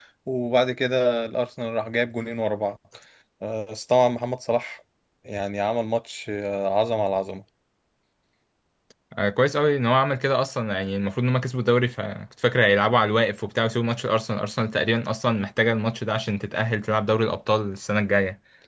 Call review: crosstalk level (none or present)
none